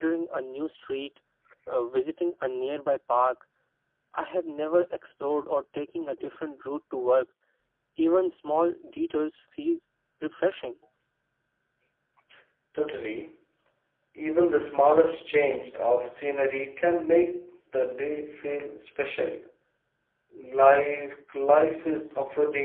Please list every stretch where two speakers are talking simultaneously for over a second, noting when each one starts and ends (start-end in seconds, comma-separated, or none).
none